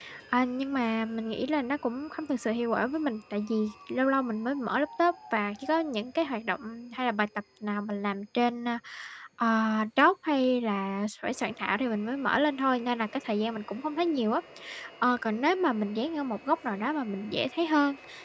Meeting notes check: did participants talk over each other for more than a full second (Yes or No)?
No